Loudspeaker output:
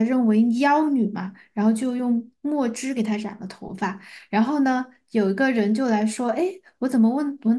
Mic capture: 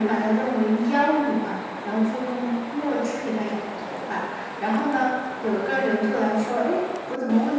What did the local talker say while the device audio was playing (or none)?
none